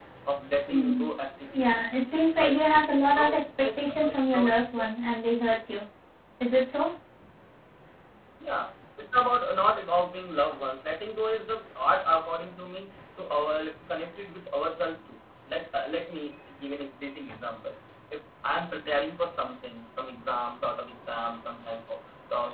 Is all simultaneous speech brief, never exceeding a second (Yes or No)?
No